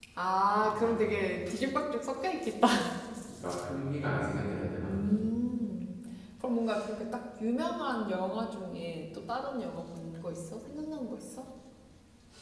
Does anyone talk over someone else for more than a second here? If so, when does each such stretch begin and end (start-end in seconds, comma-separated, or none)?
none